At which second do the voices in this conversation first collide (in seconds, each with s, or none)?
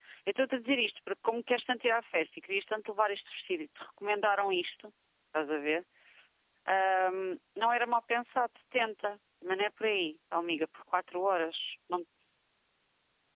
none